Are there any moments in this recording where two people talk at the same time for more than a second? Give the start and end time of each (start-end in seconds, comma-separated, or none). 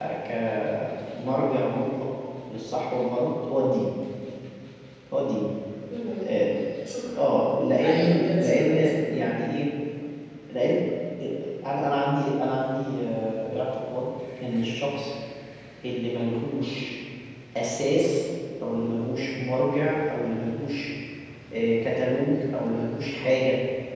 7.8-9.2